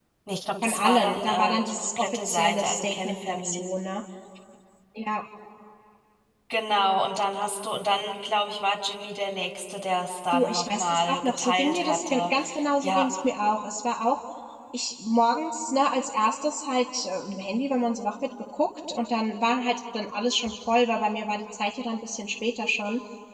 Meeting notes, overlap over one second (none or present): present